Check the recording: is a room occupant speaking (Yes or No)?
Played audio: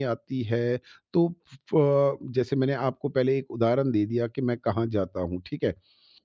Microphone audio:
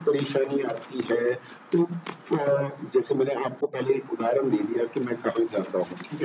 No